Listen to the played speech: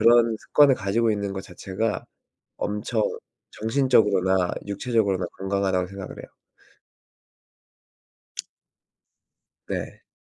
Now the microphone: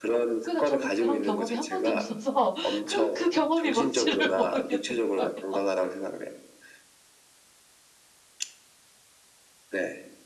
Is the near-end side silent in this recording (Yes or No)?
No